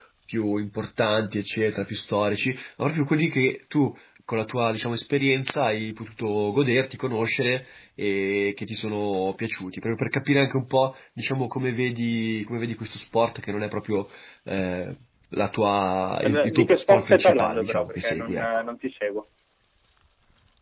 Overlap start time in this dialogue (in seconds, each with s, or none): 16.2 s